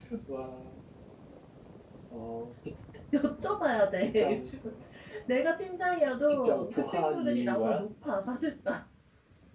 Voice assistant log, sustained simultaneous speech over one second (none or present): present